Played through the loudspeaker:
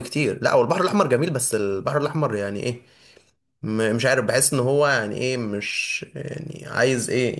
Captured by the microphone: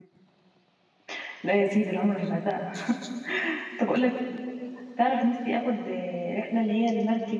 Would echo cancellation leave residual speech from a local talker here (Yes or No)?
Yes